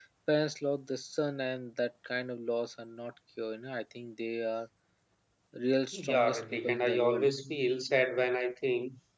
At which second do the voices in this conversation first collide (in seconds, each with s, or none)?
5.9 s